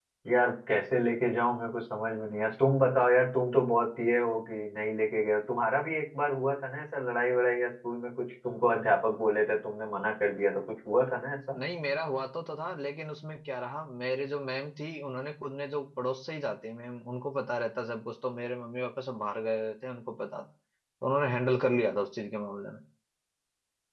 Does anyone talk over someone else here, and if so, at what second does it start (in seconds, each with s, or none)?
none